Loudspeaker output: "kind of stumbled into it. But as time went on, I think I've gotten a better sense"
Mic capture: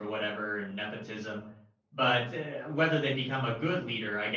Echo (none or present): none